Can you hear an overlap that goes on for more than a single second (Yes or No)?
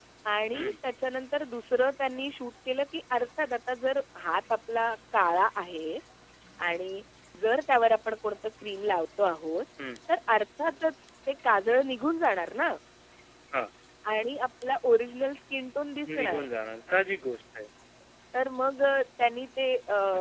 No